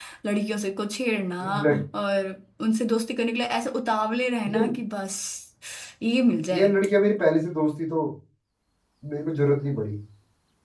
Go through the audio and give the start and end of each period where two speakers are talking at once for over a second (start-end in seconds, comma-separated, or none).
none